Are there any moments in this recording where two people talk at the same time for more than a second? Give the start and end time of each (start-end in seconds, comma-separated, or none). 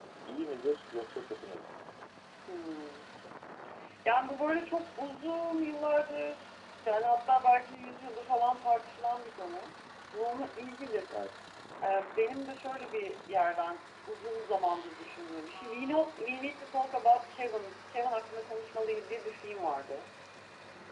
none